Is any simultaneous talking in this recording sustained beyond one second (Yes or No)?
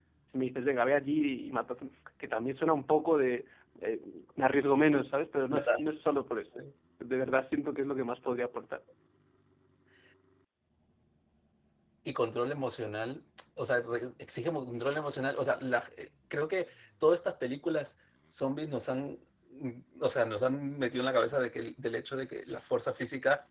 No